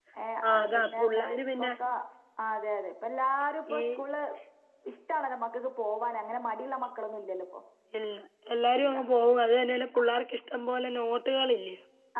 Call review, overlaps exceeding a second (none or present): present